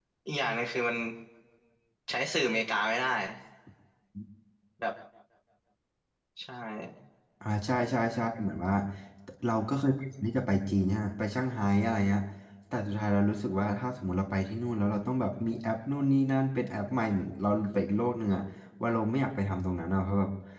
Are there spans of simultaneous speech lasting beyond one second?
No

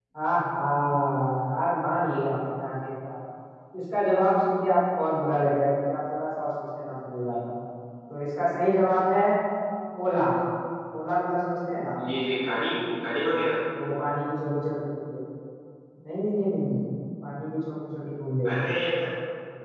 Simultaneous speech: No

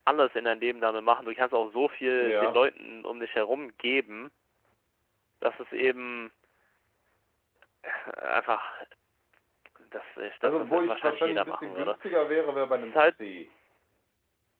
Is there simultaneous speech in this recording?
Yes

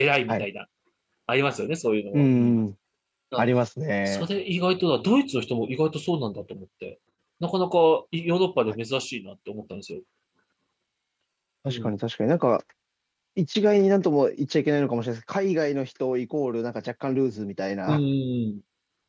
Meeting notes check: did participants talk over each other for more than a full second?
No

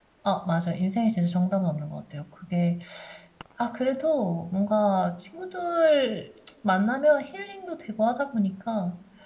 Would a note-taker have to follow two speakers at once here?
No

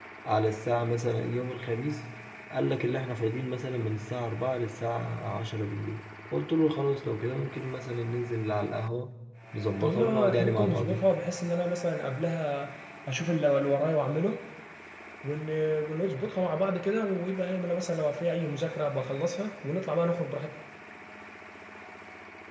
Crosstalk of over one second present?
Yes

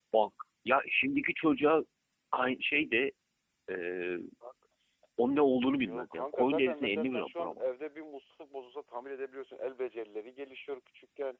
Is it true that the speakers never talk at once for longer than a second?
No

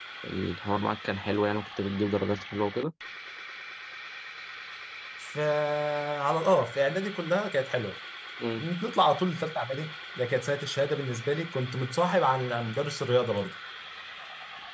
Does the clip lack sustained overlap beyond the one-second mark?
Yes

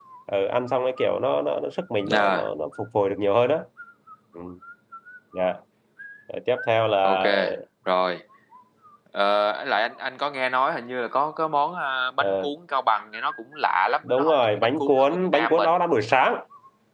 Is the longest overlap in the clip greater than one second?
Yes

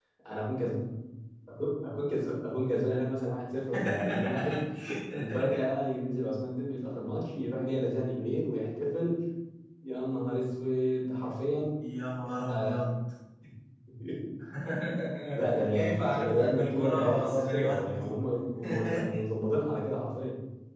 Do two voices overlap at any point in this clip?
Yes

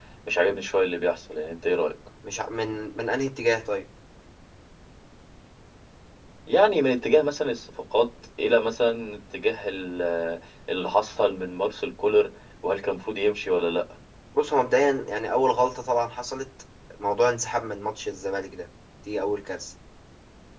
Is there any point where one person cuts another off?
No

